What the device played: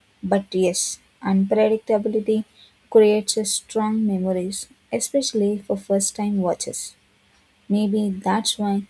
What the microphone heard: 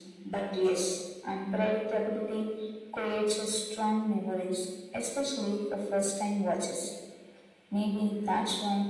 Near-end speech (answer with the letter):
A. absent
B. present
A